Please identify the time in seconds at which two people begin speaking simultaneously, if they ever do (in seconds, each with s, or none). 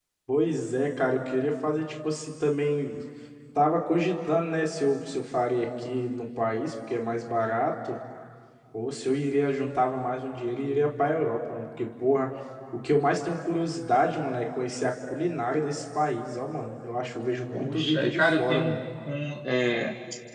17.5 s